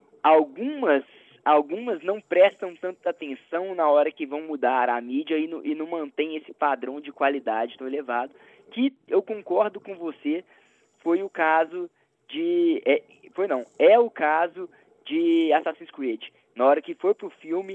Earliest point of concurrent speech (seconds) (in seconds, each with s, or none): none